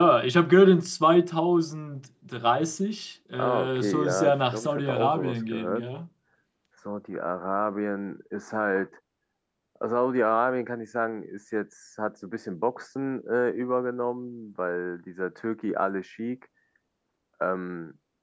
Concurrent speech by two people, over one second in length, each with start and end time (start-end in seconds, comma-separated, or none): 3.4-5.9